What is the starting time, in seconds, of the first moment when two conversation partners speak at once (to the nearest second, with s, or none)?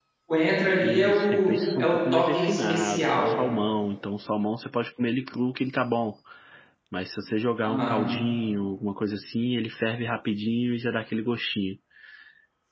1 s